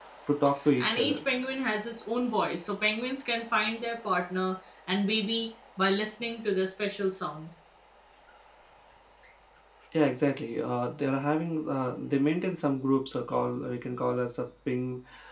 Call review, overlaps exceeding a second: none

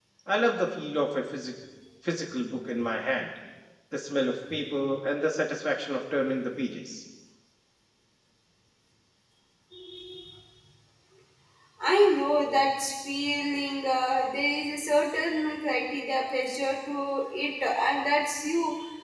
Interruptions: none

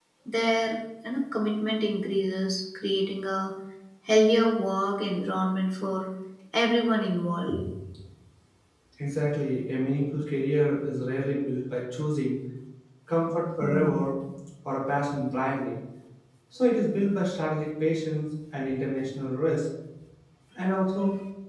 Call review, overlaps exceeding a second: none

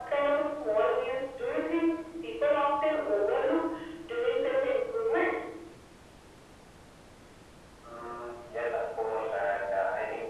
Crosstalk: none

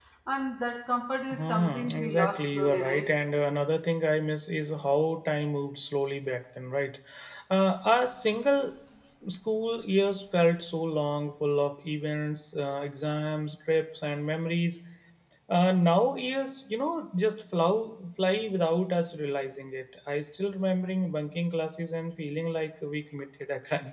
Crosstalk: present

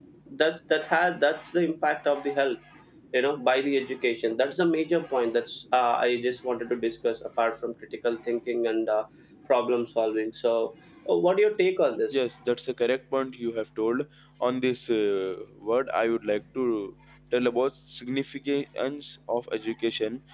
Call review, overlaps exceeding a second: none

